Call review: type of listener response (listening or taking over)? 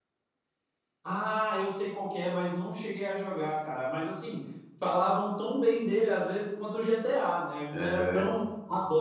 listening